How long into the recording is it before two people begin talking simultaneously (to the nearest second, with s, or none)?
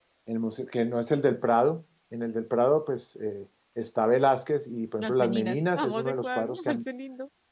5 s